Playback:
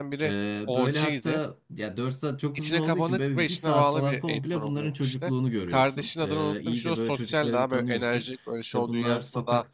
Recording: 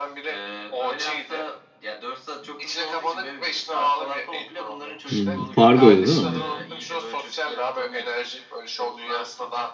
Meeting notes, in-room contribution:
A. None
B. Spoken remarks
B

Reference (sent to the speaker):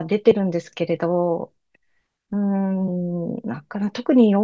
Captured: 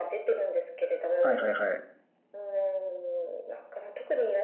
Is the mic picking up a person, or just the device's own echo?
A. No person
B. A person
B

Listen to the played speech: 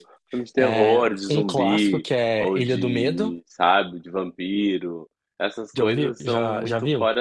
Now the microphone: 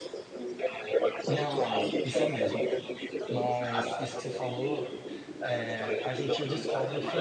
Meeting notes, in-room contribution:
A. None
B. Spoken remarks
B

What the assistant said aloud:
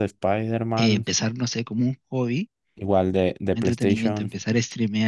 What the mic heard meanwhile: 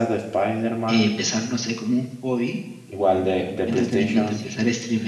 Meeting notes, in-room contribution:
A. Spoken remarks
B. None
A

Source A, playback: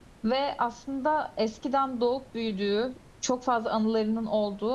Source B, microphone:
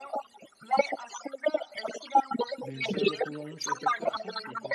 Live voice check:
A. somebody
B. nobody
A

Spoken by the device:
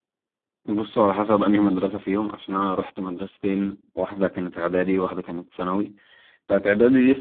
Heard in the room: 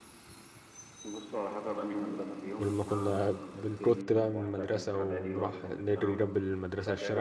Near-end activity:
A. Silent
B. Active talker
B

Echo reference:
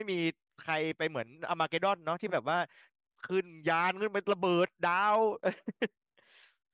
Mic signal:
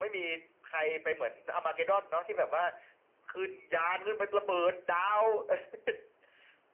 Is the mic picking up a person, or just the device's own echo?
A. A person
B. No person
B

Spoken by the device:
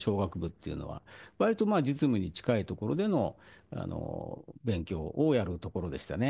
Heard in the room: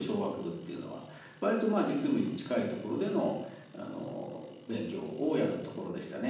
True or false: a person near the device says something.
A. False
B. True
A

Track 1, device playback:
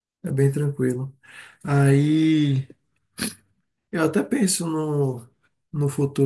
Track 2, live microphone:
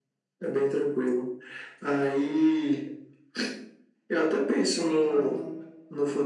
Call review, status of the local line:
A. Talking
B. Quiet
A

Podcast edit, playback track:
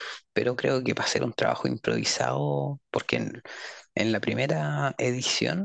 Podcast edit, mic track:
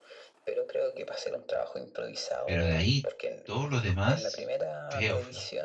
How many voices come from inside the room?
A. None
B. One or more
B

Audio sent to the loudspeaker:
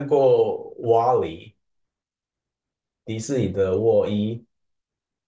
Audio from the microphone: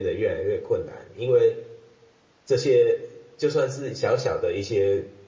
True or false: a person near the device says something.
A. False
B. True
B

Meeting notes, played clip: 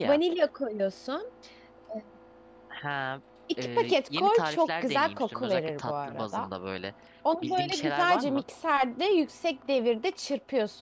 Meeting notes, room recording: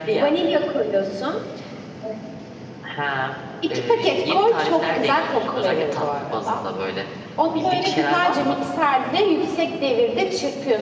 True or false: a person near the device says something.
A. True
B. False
B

